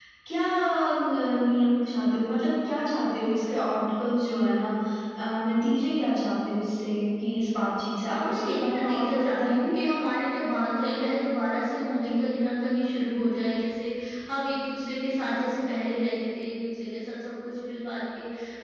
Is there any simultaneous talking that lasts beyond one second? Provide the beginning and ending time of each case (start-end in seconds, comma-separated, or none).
8.0-9.7